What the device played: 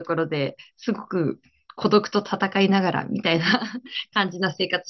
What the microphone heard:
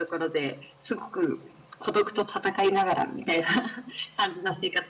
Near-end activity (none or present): none